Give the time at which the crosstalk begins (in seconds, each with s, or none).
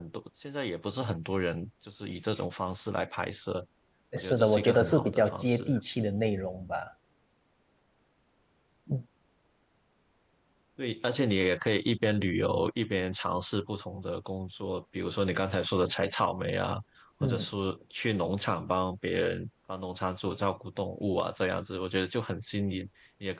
4.2 s